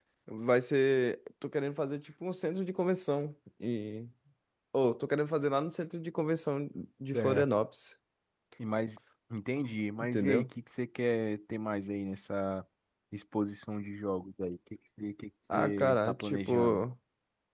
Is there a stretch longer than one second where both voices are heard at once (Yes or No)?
Yes